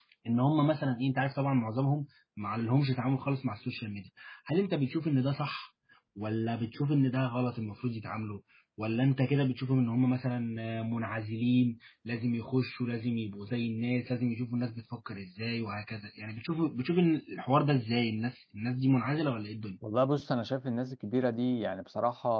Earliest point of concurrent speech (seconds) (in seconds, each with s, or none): none